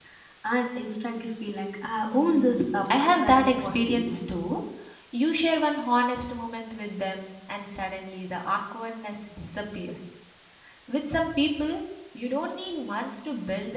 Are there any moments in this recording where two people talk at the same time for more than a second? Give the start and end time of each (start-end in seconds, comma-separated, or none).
2.1-4.3